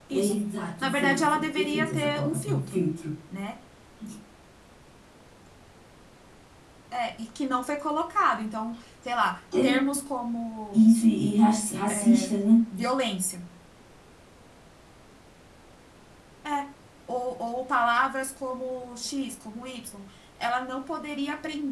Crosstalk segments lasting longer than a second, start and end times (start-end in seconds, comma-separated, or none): 0.8-2.8